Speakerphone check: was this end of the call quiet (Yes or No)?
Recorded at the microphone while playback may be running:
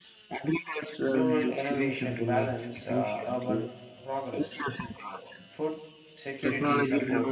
No